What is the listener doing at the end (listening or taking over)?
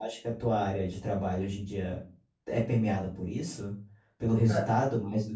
listening